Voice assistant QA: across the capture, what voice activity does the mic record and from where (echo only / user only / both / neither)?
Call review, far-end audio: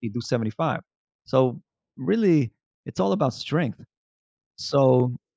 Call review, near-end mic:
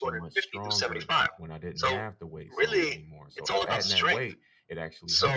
both